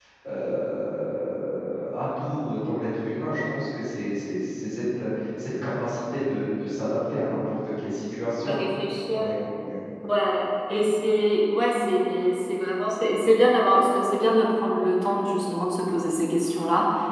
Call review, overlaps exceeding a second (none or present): none